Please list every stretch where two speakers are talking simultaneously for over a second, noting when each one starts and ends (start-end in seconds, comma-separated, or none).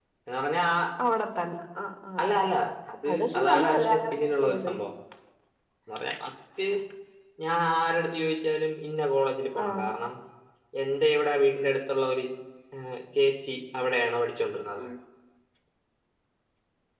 3.1-4.7